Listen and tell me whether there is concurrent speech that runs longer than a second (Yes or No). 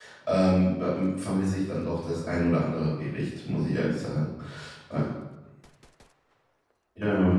No